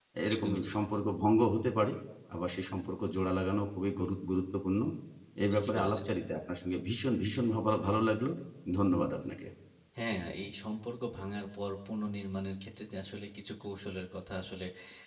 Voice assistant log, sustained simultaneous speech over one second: none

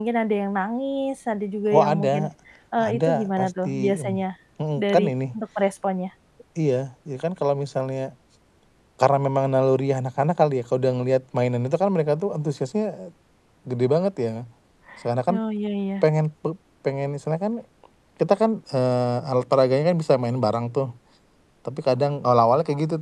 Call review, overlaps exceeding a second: present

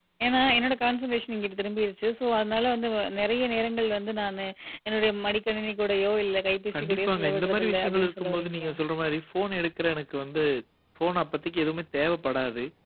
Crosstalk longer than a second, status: present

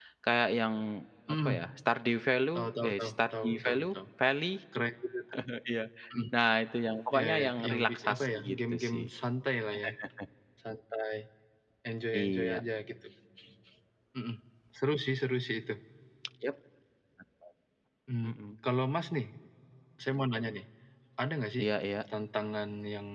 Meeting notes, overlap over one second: present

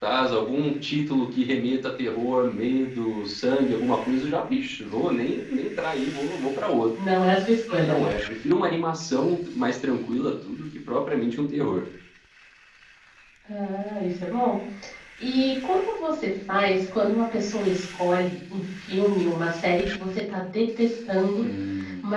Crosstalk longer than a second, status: none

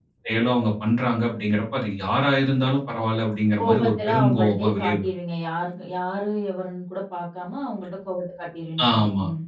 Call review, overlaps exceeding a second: present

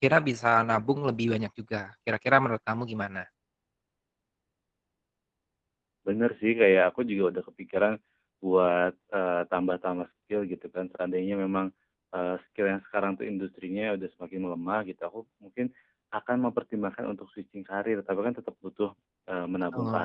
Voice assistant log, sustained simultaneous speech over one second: none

